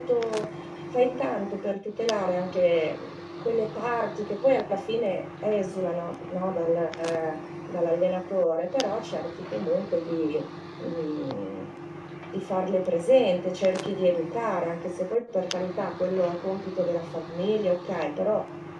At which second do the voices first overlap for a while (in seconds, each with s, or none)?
none